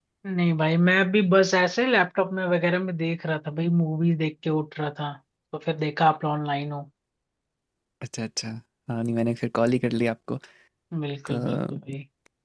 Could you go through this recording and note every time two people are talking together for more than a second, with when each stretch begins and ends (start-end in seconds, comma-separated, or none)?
none